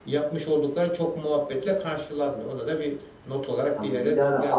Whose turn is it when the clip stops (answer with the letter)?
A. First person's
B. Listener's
B